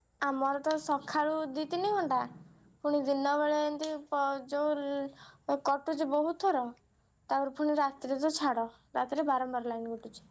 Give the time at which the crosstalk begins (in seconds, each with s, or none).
none